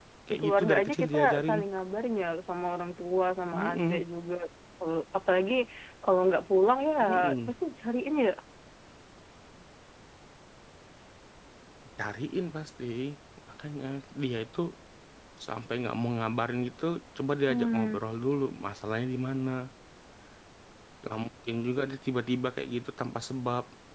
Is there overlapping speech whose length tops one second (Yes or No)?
Yes